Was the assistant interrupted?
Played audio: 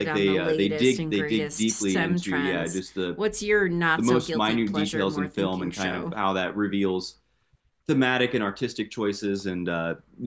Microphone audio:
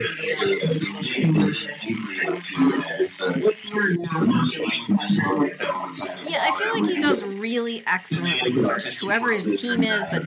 Yes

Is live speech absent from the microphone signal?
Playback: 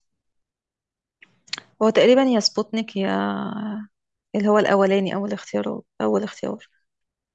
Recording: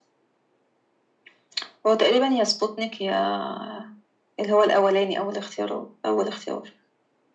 Yes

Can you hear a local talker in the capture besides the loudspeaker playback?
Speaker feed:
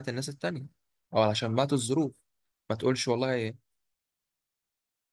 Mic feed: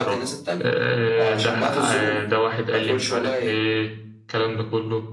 Yes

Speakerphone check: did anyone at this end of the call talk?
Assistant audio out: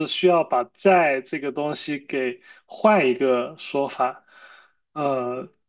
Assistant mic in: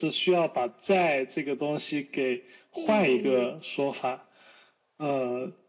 Yes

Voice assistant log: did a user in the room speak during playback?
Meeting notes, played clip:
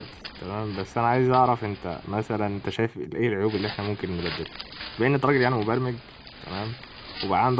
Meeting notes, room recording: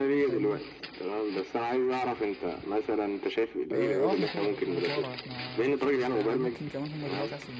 Yes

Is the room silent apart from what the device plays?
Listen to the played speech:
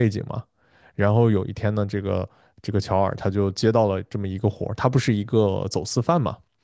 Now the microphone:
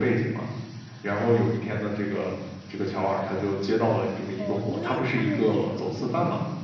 No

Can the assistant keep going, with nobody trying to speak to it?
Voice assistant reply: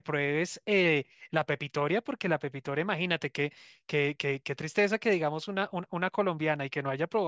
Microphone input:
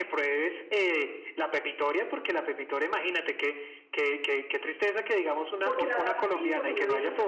No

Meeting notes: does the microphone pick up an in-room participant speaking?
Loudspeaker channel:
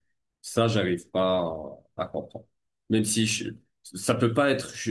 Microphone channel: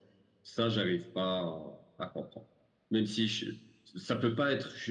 No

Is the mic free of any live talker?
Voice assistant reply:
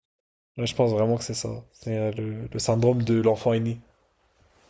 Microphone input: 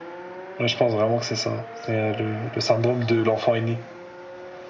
Yes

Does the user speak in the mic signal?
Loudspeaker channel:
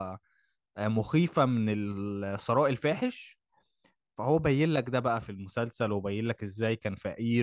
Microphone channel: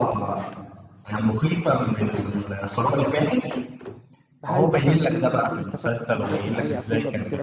Yes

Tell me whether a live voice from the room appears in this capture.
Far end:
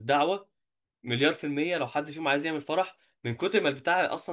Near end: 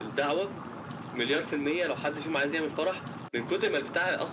No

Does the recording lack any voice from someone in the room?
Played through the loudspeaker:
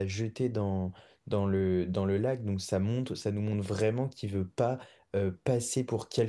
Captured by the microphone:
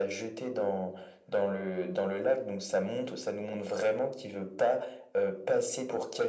Yes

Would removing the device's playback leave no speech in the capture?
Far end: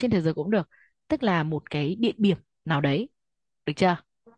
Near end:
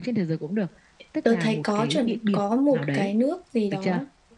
No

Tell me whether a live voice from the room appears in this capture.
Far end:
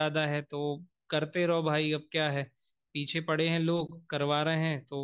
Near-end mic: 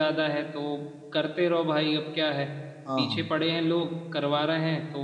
Yes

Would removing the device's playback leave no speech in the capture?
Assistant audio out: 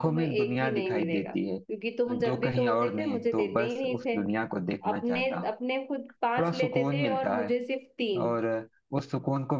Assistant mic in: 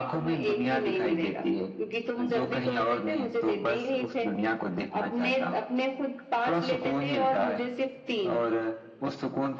Yes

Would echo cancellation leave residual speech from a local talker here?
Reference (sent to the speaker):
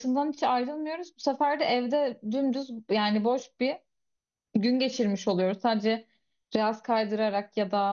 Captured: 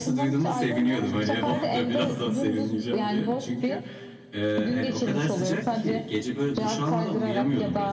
Yes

